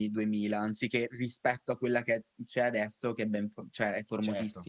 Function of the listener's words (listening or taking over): taking over